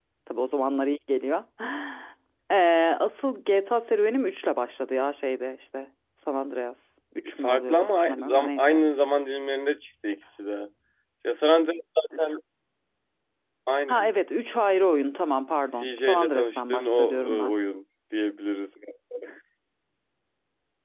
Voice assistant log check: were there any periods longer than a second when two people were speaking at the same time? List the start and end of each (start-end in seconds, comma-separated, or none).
7.4-8.8, 15.8-17.5